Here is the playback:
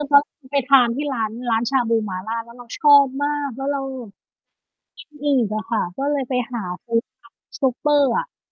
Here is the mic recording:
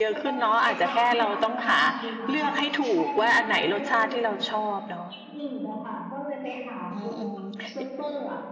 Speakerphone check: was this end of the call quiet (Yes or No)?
No